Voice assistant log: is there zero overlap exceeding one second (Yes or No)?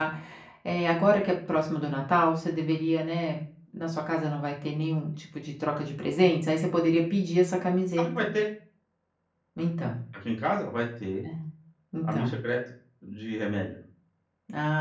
Yes